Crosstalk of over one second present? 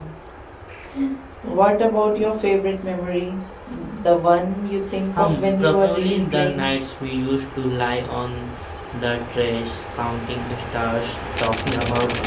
Yes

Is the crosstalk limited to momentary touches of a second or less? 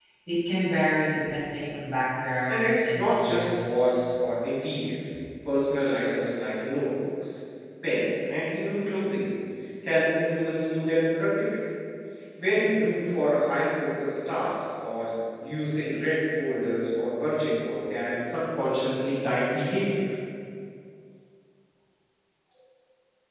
No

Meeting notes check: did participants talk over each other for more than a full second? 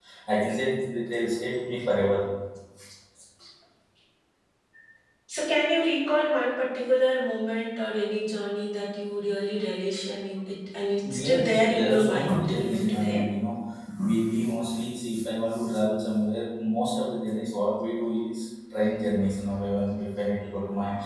Yes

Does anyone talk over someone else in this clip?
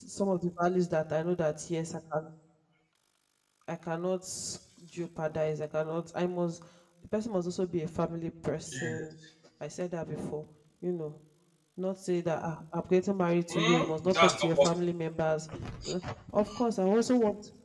Yes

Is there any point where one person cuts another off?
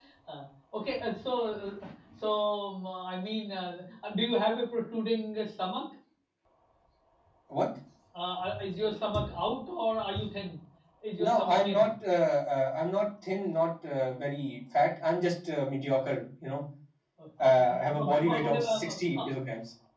Yes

